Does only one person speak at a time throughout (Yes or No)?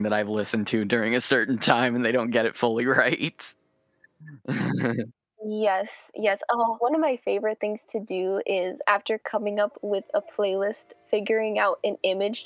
Yes